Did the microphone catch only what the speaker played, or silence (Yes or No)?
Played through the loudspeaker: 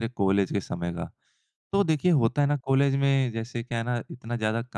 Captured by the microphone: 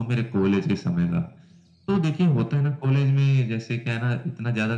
Yes